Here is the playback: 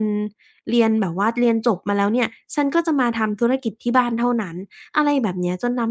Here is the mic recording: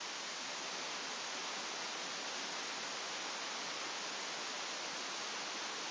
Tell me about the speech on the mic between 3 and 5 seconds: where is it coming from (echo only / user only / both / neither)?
neither